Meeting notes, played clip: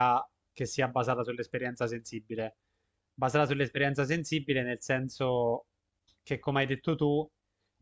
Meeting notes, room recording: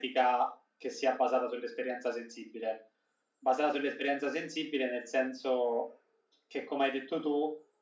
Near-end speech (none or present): none